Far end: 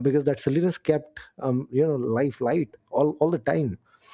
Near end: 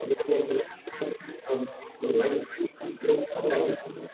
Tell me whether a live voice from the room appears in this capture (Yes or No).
No